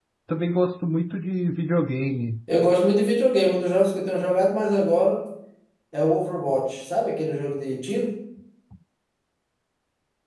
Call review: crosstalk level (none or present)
none